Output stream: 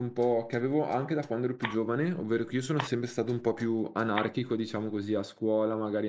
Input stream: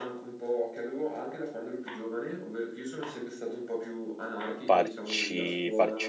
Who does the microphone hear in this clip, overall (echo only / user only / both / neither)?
both